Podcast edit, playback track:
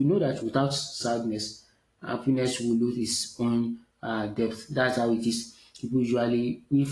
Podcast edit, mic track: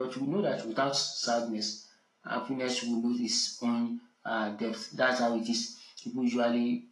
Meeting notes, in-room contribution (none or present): none